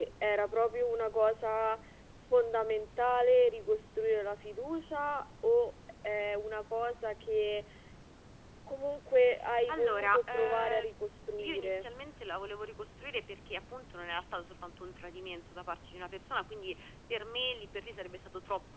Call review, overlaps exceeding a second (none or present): present